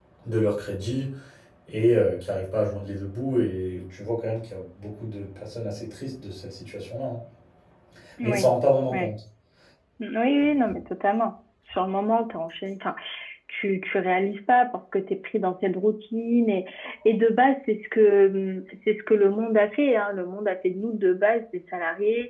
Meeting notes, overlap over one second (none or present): none